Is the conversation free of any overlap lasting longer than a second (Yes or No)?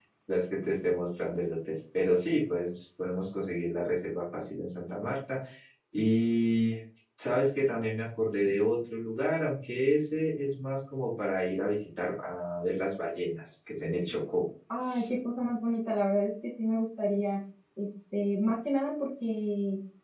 Yes